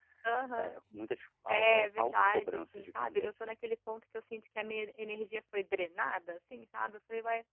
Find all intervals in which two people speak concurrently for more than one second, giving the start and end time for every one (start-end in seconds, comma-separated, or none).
1.5-3.6